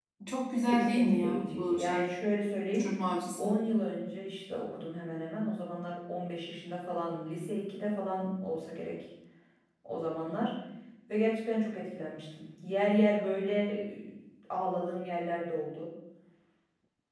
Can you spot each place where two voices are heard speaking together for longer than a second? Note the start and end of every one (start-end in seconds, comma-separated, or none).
0.7-2.1